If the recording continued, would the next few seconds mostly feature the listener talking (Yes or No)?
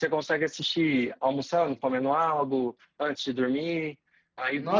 Yes